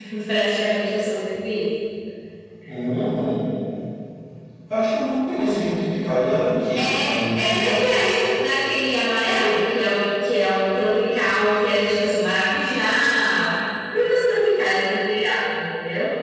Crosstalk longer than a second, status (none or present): none